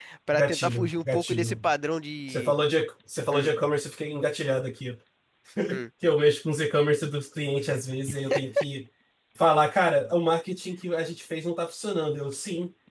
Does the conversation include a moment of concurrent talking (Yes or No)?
Yes